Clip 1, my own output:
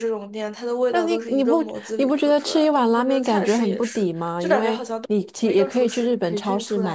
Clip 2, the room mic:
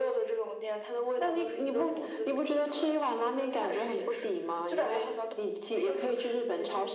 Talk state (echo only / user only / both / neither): echo only